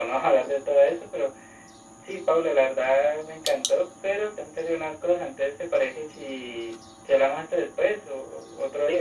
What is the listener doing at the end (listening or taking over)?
taking over